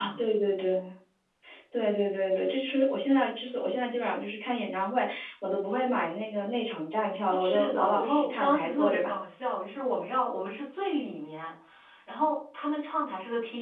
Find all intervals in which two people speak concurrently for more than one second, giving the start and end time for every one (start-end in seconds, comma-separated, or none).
7.4-9.1